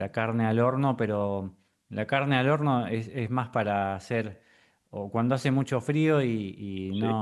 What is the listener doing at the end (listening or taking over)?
listening